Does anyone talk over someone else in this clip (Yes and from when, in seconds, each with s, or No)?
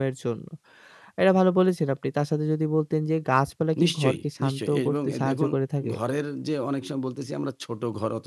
Yes, from 3.8 s